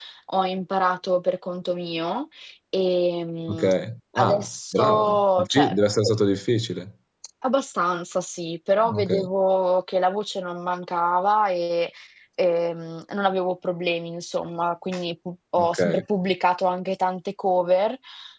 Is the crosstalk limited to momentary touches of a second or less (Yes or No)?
No